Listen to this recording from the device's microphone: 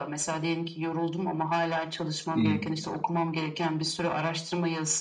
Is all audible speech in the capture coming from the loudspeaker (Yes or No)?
No